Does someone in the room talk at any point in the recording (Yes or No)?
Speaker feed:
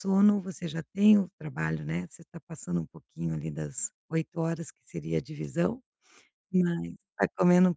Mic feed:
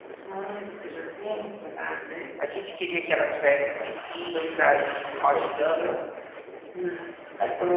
Yes